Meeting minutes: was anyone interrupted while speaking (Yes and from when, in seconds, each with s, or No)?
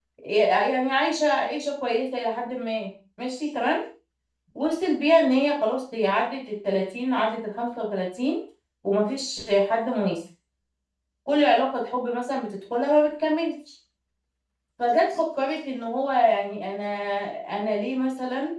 No